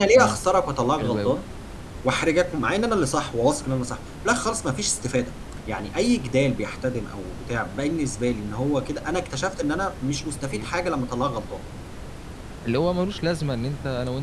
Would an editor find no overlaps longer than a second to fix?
Yes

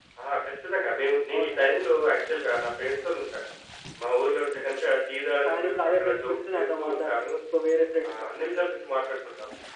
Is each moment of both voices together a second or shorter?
No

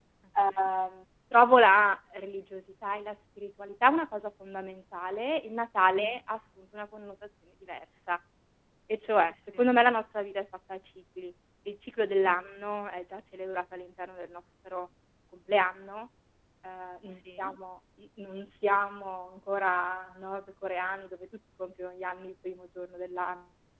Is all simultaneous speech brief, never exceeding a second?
Yes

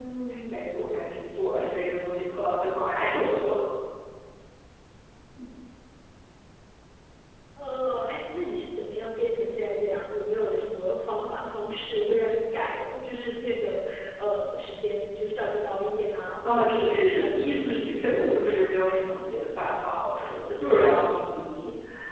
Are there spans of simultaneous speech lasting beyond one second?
Yes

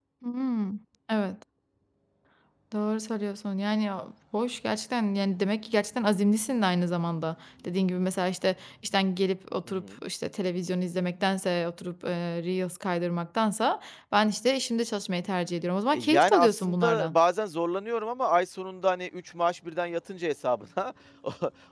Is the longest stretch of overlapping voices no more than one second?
No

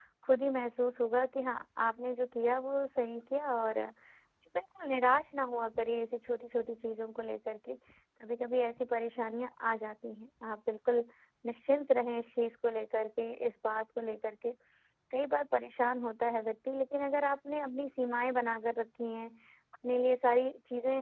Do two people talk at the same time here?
No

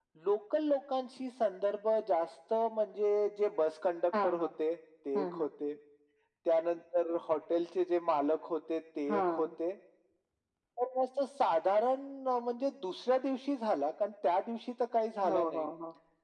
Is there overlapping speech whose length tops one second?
No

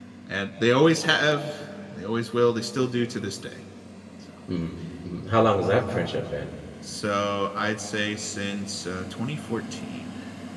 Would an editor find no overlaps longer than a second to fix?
Yes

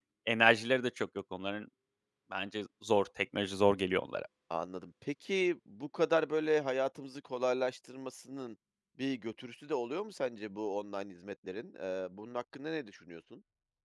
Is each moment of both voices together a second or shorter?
Yes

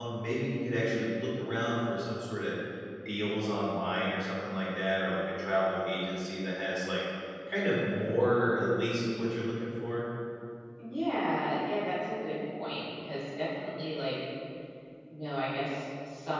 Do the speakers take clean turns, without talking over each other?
Yes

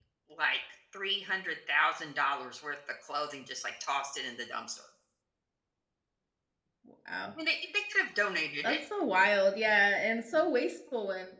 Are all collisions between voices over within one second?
Yes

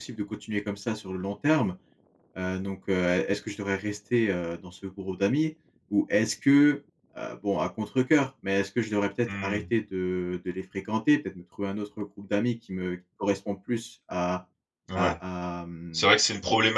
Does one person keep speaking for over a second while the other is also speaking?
No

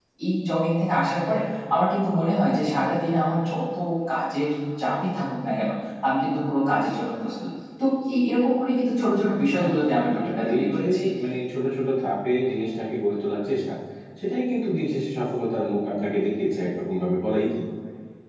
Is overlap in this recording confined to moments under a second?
No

